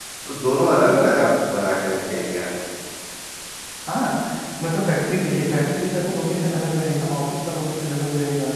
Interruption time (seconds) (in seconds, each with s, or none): none